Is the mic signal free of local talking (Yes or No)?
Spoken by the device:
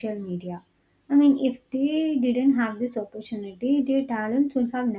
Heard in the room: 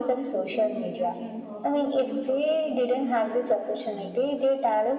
No